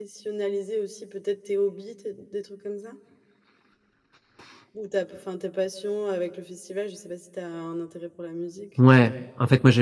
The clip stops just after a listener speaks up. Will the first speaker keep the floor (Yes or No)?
No